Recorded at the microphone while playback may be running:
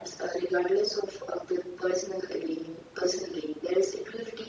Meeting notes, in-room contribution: none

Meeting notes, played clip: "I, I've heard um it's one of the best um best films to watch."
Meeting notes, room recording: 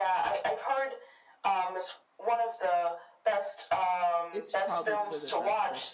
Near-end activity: present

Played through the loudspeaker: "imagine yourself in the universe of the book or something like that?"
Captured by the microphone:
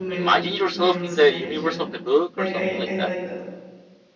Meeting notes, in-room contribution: present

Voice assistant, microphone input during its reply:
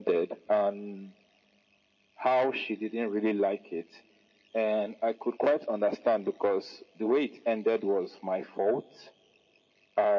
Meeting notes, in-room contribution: none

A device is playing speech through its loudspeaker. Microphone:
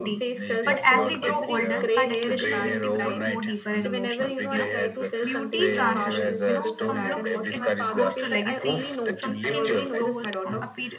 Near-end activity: present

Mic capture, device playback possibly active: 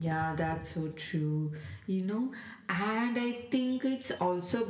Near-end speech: none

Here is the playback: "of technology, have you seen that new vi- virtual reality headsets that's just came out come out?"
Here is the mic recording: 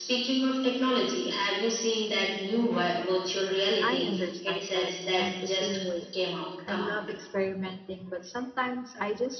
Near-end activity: present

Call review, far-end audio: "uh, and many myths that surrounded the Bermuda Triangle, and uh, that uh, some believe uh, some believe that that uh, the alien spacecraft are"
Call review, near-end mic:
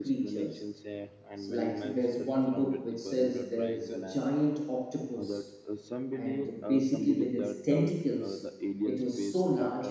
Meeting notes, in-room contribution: present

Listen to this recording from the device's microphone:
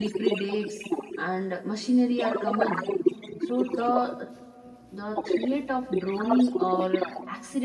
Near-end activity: present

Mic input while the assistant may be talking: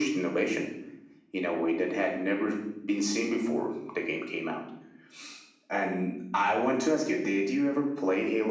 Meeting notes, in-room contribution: none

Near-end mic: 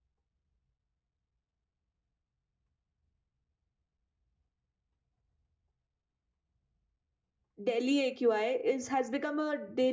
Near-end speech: present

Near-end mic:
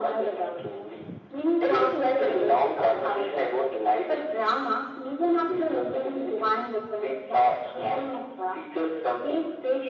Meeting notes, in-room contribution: none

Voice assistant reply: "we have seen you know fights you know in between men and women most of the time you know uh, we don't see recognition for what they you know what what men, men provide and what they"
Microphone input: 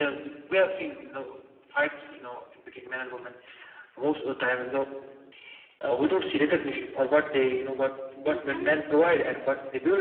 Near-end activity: present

